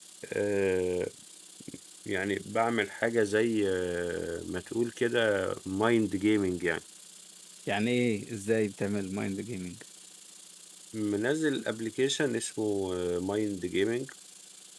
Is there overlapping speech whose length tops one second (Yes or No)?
No